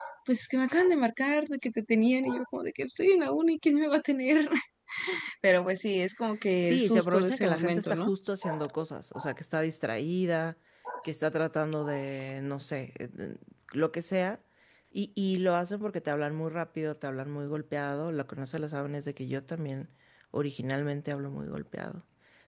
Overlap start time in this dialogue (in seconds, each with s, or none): 6.6 s